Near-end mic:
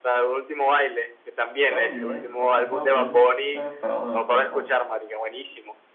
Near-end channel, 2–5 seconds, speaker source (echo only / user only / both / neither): both